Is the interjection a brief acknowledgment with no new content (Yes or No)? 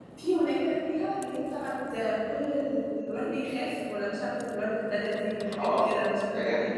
No